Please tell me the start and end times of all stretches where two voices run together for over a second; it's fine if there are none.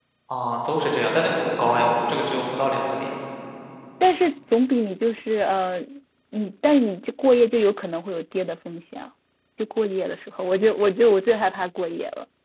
none

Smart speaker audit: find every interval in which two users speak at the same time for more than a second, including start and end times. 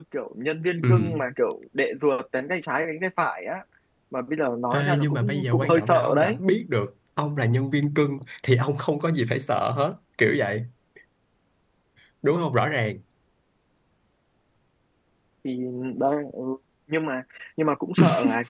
4.7-6.4

